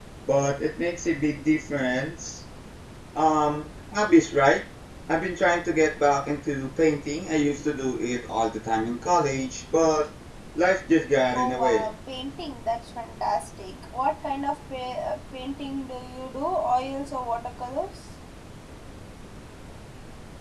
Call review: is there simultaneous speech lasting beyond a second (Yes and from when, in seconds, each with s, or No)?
No